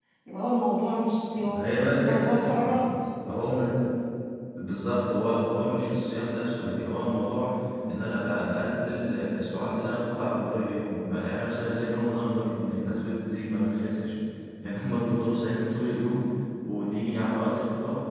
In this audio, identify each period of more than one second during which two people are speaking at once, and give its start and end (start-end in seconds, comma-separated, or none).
1.5-2.8